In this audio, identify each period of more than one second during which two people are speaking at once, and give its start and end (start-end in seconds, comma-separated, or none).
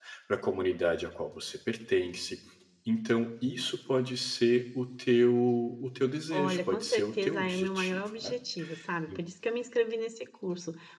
6.3-8.3